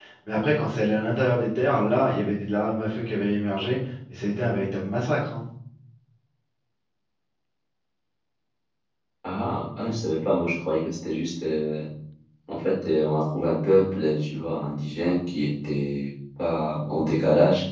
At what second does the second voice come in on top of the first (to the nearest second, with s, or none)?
none